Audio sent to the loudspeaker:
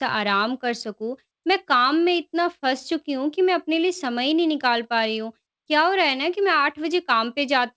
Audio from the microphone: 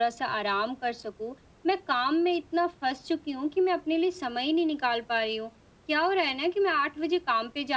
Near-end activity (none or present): none